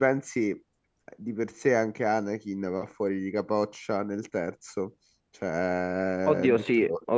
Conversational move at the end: taking over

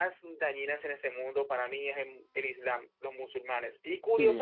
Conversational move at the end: listening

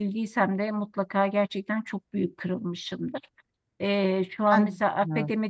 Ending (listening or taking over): listening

